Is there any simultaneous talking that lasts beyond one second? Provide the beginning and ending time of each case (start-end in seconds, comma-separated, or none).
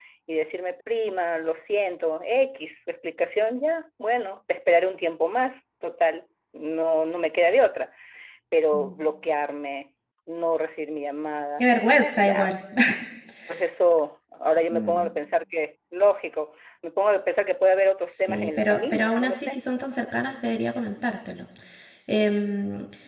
18.1-19.6